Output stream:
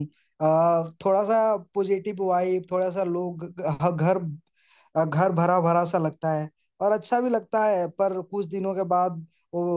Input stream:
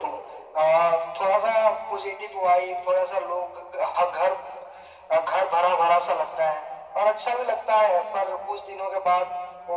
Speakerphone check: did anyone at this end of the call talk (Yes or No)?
No